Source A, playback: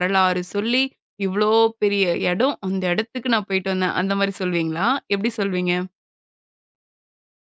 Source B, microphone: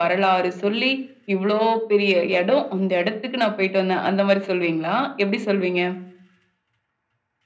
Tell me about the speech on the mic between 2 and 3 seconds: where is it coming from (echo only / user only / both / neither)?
echo only